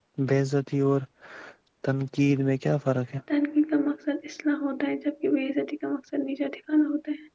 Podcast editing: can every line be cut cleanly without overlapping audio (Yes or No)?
Yes